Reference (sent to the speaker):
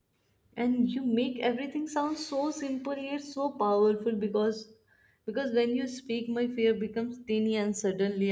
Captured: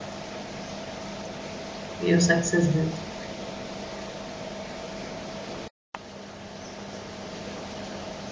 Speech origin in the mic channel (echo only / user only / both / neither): user only